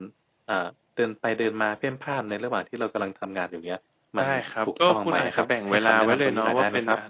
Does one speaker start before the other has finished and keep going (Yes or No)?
Yes